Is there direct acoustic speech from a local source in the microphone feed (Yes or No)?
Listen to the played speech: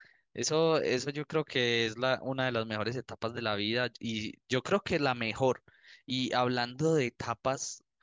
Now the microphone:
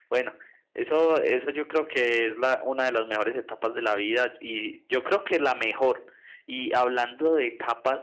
No